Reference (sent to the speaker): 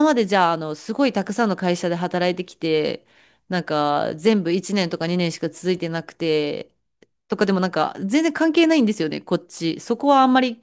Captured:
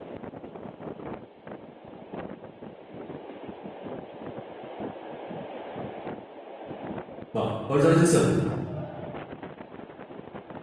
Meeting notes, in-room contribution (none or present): present